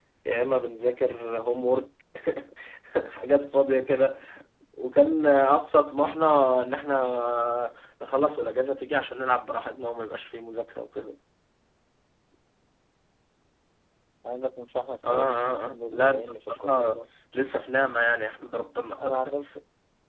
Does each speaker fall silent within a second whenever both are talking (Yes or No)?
No